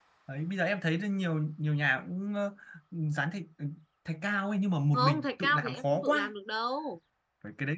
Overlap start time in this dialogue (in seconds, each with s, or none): 4.9 s